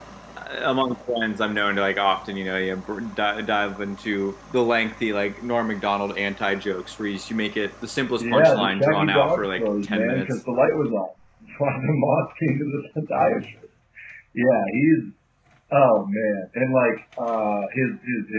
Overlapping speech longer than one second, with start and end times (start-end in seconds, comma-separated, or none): 8.2-10.3